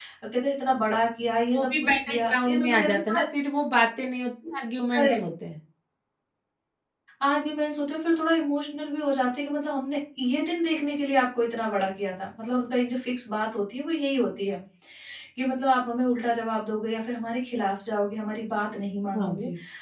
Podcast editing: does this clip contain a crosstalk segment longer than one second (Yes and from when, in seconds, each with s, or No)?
Yes, from 1.5 s